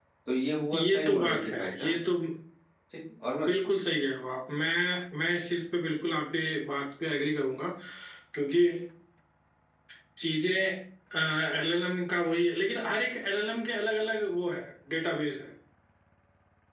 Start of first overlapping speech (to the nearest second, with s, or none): 1 s